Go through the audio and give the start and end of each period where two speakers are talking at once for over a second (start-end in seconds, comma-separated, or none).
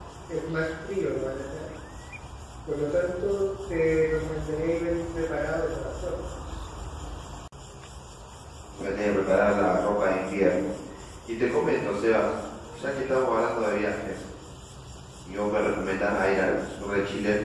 none